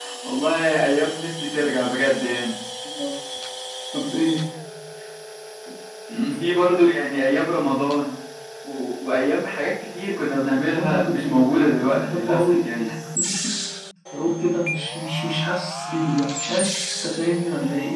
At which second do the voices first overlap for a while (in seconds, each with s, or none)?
10.5 s